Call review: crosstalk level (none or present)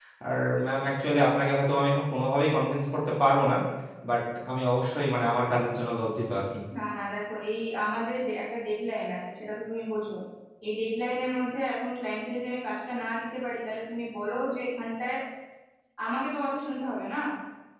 none